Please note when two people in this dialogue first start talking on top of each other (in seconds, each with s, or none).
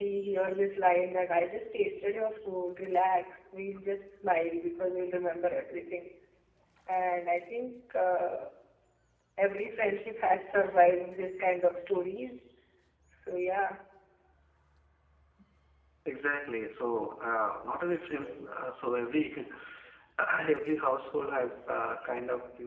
none